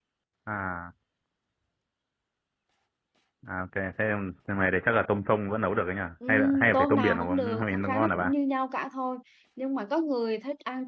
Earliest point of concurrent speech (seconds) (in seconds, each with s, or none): 6.2 s